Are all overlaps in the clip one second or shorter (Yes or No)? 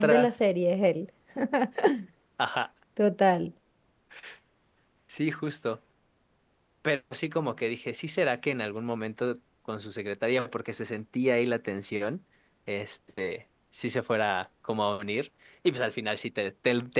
Yes